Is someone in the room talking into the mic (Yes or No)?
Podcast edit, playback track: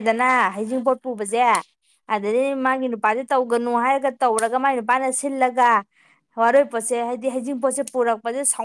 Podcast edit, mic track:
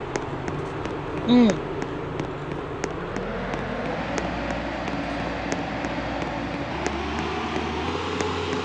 Yes